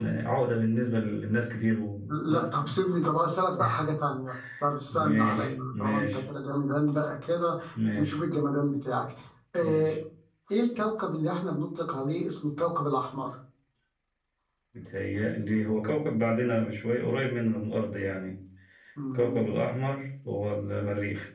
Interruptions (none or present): present